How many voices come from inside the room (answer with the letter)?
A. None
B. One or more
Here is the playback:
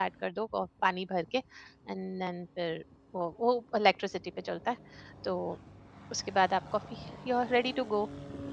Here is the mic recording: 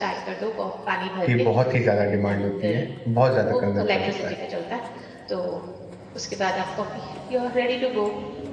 B